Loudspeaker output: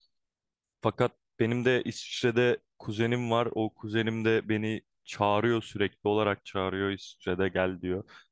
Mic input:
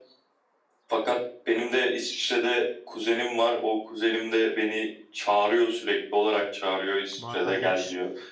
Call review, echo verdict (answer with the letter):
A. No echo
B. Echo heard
B